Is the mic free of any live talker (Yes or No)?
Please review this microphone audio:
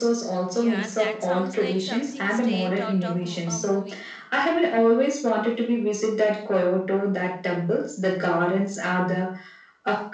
No